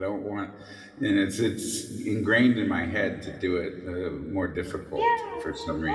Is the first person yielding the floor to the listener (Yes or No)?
Yes